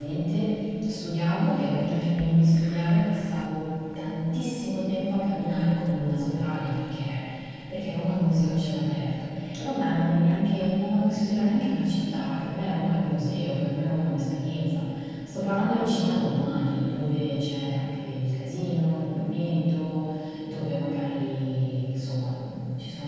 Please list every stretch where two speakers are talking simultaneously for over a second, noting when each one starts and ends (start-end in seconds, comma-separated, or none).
none